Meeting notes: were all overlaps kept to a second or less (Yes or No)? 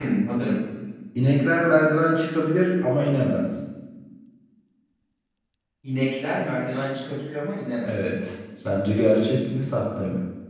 Yes